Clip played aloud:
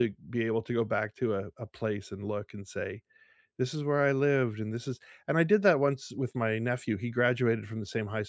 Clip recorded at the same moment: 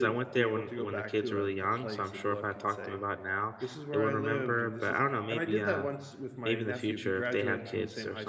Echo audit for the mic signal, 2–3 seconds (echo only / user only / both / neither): both